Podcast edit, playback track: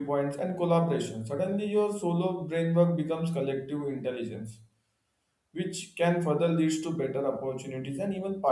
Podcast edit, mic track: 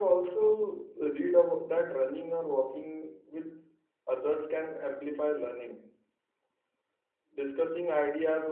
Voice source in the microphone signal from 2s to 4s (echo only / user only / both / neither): user only